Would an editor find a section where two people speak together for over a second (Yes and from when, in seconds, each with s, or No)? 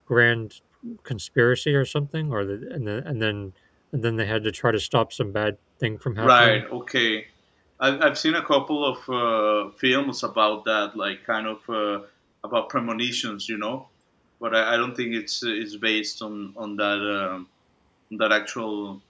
No